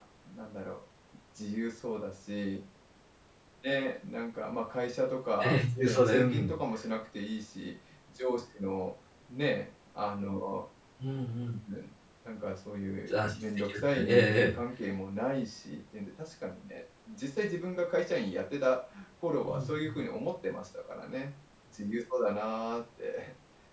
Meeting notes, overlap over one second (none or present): present